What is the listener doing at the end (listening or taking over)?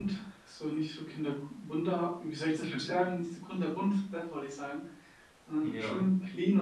listening